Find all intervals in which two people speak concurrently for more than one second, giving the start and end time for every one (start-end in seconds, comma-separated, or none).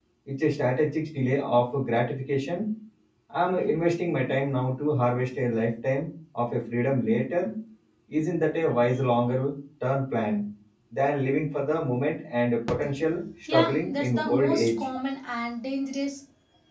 13.5-14.8